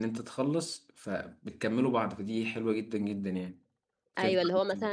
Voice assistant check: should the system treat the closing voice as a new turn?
Yes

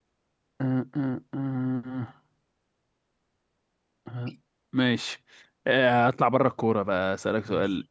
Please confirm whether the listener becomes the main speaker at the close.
No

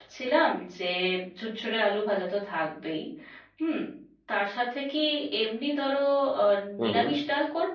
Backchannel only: Yes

